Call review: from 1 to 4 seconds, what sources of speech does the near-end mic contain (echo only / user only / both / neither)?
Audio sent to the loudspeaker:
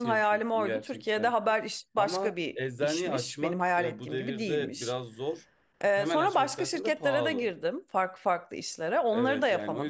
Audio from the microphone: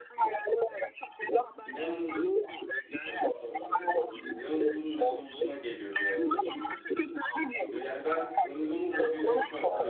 both